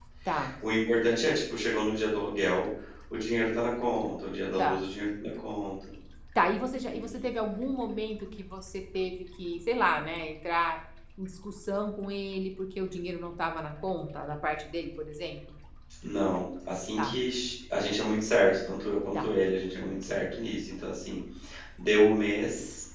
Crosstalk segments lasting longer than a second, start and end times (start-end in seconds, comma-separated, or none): none